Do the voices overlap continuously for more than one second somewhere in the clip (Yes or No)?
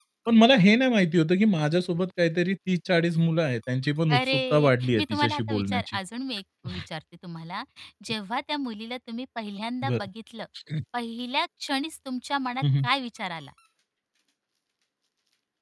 Yes